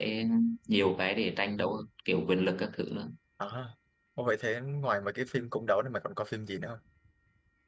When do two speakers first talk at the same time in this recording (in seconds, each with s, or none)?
none